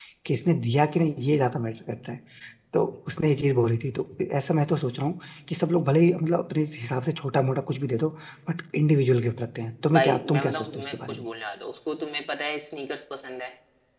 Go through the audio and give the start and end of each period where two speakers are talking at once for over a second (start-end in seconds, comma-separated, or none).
9.9-11.2